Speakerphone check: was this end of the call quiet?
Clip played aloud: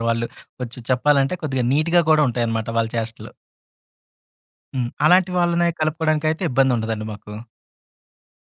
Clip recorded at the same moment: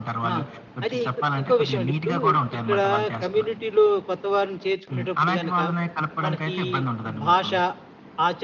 No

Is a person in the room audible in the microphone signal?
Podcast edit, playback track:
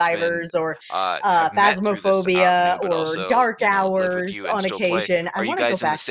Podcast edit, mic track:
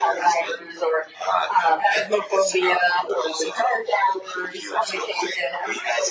No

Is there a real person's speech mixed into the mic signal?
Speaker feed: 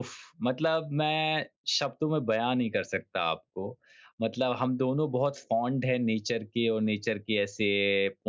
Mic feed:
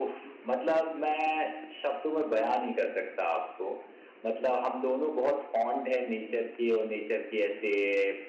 No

